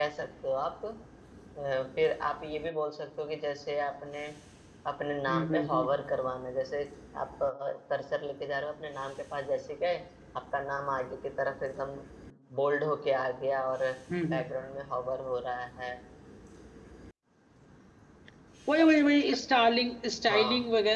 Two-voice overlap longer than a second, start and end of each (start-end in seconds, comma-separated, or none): none